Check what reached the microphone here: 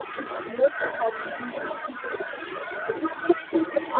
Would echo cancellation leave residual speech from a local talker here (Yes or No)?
No